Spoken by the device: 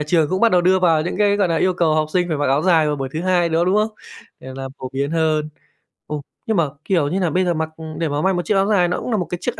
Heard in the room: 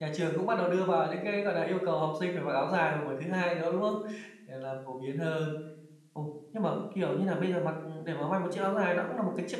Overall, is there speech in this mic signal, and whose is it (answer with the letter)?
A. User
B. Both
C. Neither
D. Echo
D